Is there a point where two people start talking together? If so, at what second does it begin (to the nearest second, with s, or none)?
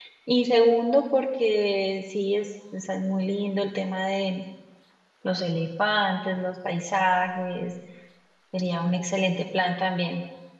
none